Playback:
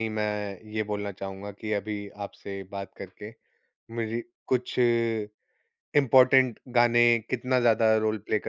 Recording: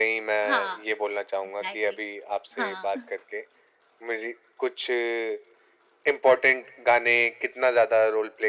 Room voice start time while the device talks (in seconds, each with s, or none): 0.4 s